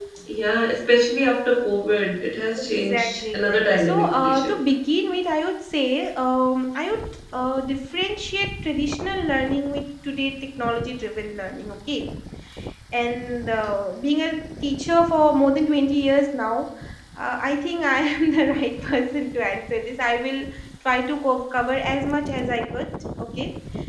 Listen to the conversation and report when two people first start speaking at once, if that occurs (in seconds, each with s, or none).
2.6 s